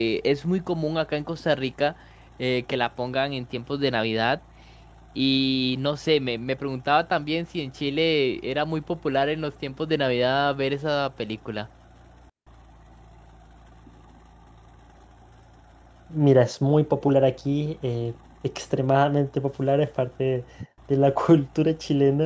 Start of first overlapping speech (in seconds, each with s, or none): none